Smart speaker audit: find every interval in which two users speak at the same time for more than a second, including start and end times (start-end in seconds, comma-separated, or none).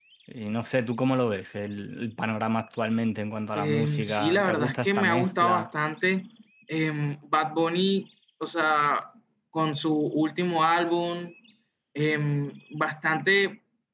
3.5-5.7